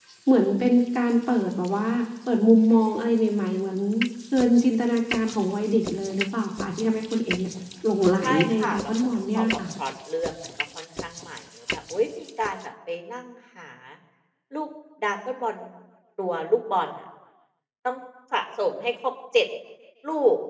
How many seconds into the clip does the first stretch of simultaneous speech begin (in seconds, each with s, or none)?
8.2 s